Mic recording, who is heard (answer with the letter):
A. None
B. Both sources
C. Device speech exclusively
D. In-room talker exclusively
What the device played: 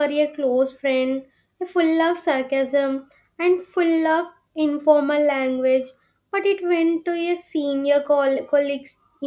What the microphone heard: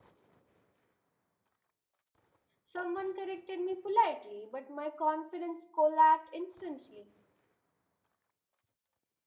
D